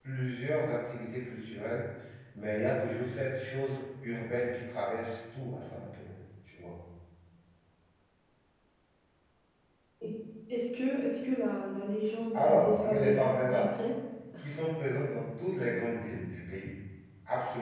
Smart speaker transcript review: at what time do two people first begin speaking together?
12.3 s

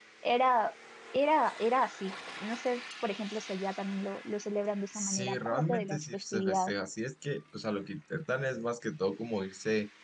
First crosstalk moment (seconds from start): 4.9 s

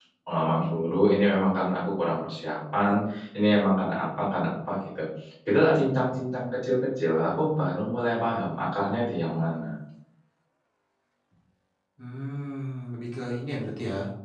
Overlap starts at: none

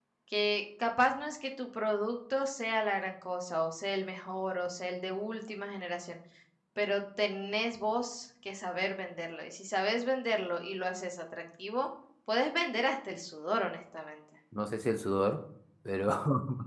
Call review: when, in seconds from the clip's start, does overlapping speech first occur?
none

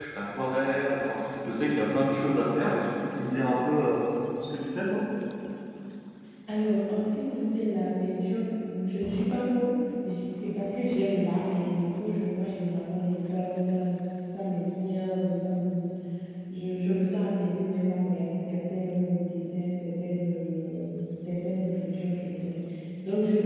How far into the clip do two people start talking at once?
none

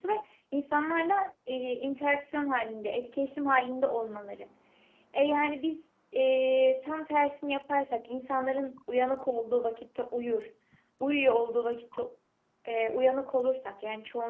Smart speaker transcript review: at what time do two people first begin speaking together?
none

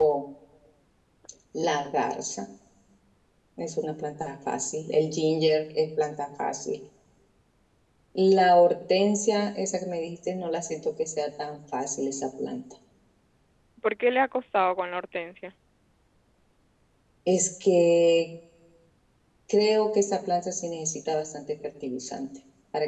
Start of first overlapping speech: none

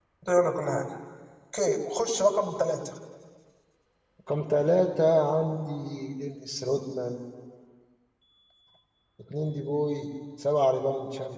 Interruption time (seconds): none

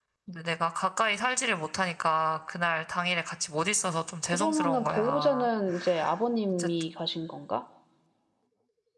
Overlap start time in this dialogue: 4.2 s

